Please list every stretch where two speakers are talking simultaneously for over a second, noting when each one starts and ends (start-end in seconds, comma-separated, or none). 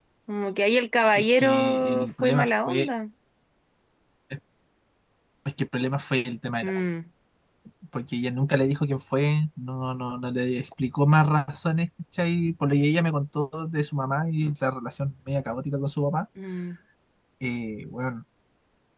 1.2-2.9